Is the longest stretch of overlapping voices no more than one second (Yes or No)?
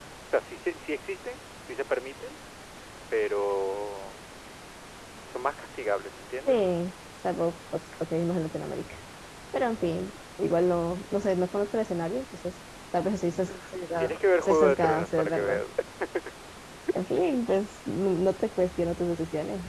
No